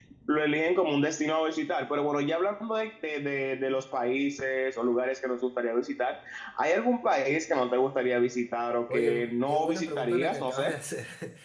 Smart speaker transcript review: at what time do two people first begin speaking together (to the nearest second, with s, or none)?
9 s